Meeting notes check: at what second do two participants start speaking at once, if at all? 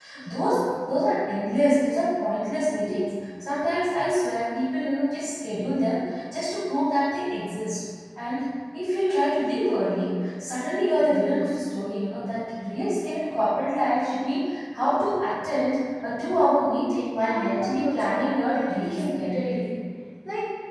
17.2 s

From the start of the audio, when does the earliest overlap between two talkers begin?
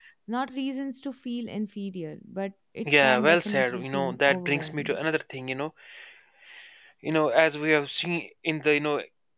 2.8 s

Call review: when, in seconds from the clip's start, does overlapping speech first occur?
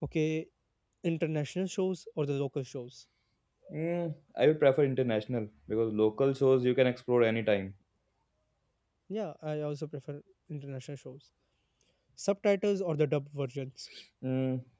none

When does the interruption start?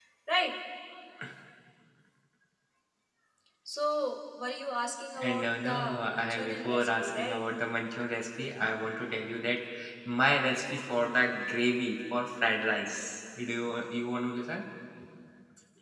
5.2 s

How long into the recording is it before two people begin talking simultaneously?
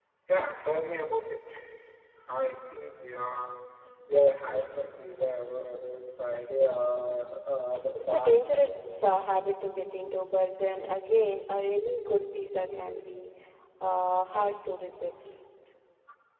8.0 s

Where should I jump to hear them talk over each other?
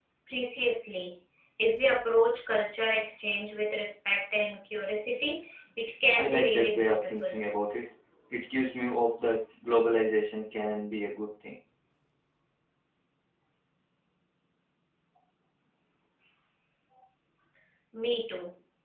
6.1 s

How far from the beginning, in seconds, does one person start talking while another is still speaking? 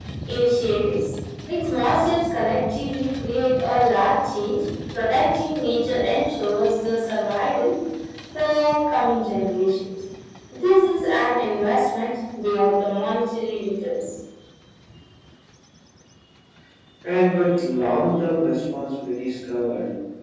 none

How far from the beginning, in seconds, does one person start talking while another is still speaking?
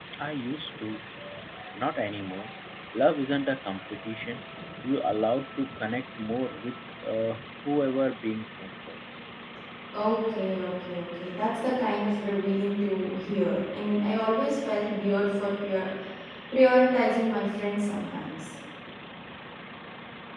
none

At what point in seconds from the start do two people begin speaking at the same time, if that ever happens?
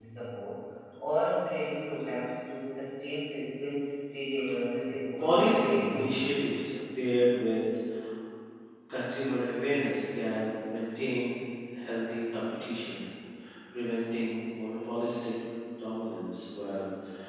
5.2 s

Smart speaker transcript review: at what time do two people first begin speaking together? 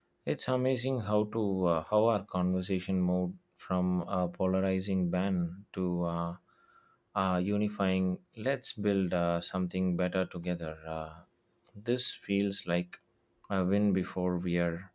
none

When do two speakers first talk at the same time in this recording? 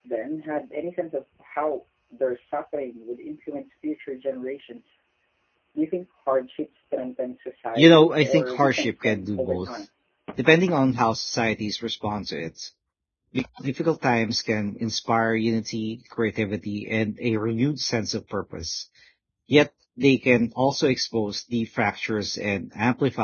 7.8 s

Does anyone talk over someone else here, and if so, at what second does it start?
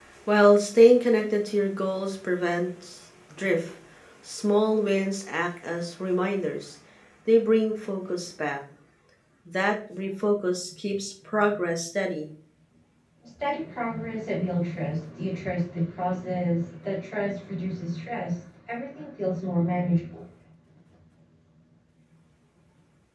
none

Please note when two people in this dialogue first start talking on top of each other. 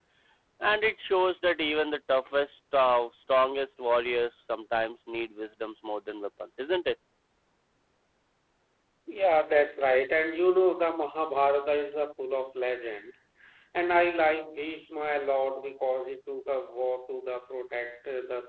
none

